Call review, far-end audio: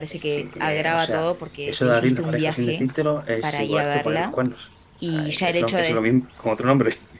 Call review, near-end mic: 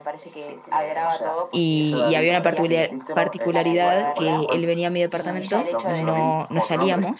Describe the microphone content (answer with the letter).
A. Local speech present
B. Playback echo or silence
A